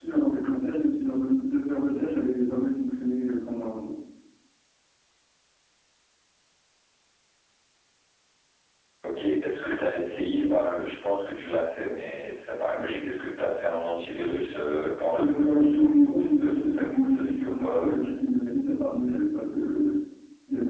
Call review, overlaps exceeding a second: present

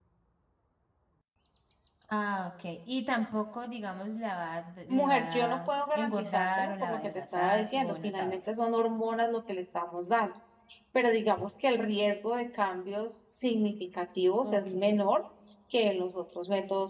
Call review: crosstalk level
present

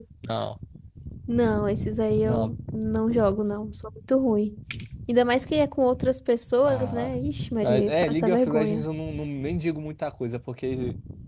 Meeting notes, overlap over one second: present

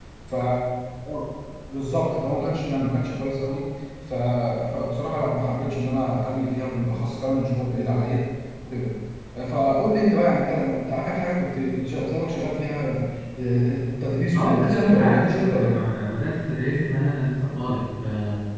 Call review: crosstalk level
present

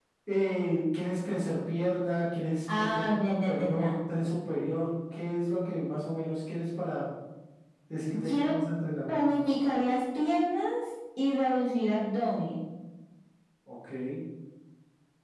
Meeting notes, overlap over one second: present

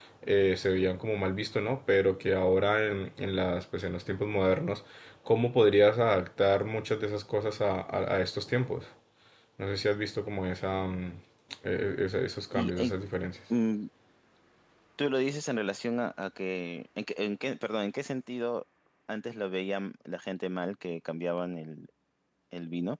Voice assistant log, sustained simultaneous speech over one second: none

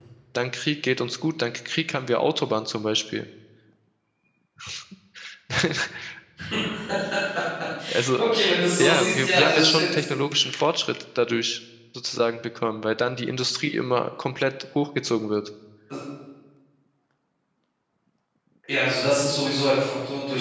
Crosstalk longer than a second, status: present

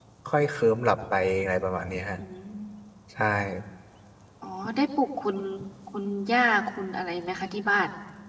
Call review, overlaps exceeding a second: none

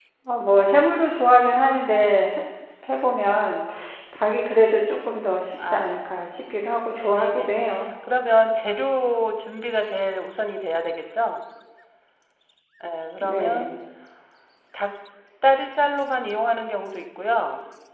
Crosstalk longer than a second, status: none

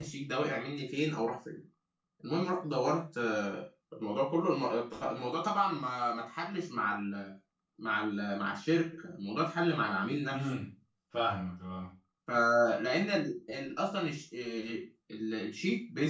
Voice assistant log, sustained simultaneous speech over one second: none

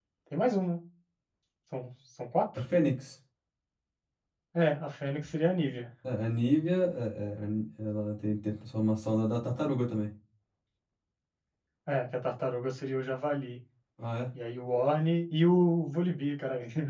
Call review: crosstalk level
none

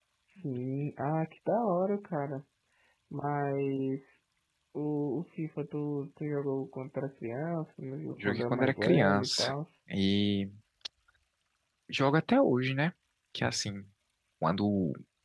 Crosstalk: present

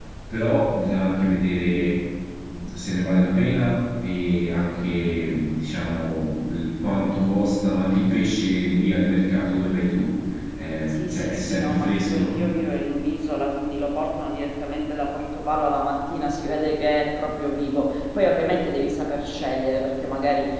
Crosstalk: present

